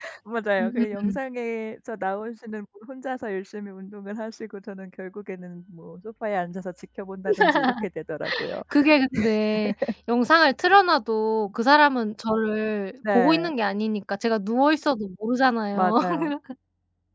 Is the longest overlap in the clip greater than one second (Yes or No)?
No